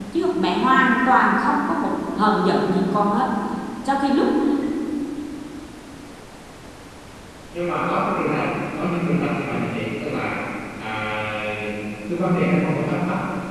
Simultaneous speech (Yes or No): No